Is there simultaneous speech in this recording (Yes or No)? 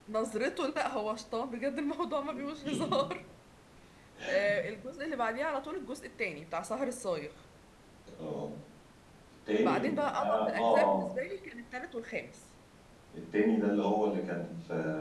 Yes